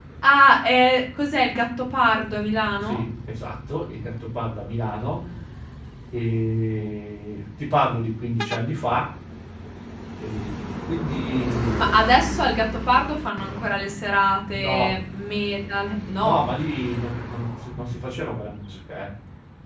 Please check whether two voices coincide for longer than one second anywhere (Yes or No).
No